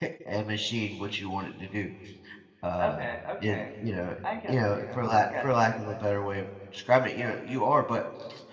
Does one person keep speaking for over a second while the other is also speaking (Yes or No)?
Yes